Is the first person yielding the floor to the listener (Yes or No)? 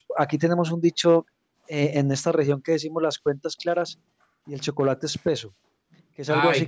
Yes